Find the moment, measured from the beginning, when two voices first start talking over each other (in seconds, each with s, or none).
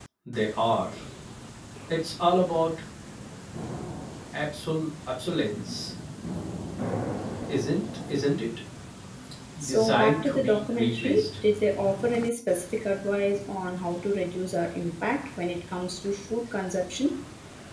9.6 s